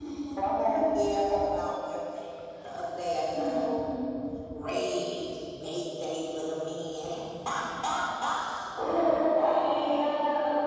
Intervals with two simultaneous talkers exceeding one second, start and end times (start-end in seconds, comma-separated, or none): none